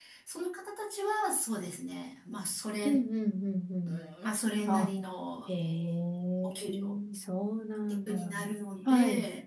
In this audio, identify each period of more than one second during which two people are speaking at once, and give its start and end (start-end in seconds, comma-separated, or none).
none